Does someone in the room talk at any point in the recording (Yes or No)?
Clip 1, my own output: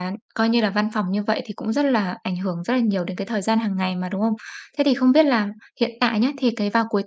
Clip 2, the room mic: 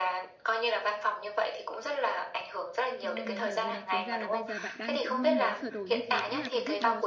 Yes